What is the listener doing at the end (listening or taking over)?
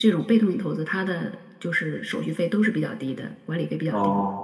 taking over